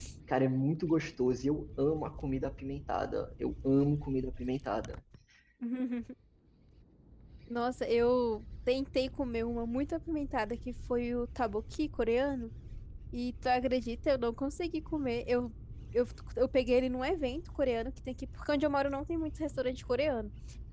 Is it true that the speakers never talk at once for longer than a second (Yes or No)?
Yes